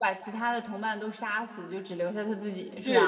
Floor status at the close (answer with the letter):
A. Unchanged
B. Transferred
B